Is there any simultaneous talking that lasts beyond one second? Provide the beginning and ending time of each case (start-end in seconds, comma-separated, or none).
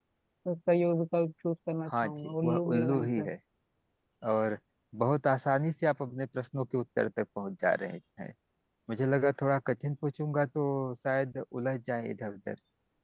1.9-3.3